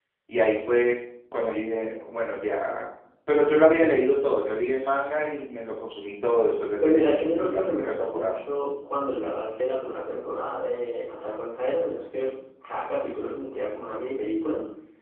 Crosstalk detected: Yes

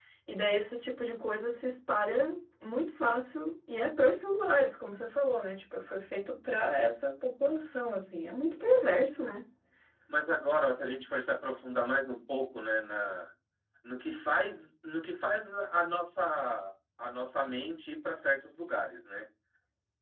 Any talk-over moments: No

